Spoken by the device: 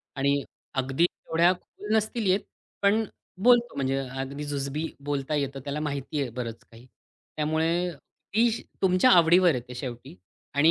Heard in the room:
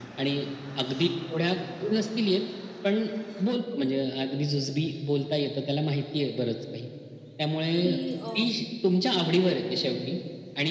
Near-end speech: present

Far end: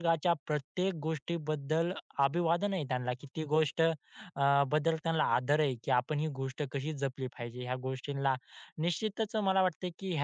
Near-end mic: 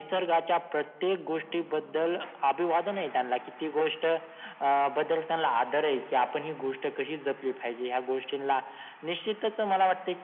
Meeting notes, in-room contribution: none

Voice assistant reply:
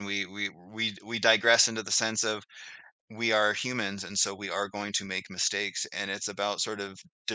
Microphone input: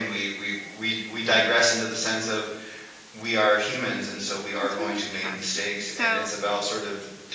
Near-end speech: present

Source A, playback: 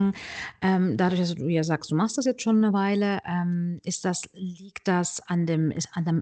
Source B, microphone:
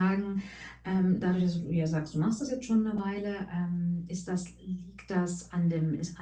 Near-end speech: none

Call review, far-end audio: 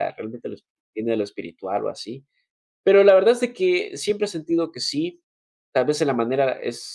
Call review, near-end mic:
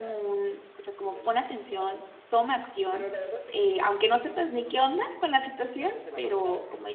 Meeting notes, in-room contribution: present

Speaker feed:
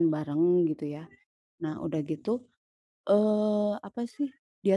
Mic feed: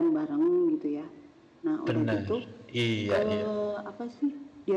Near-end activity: present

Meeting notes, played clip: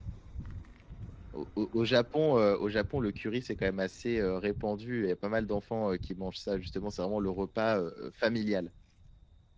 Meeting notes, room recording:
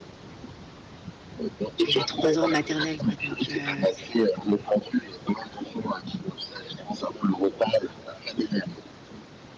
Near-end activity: present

